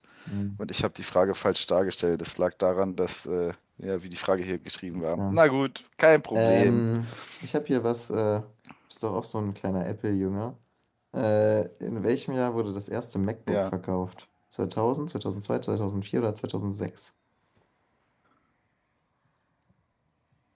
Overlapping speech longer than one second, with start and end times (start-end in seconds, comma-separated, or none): none